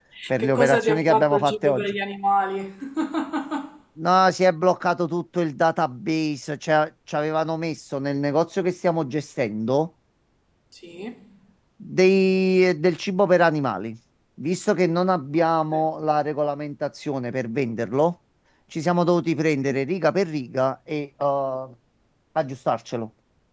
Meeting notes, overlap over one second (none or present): present